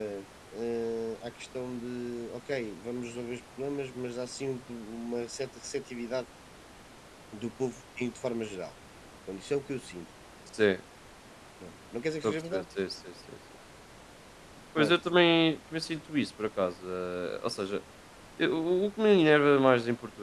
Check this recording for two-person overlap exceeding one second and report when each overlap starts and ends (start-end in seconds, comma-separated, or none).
none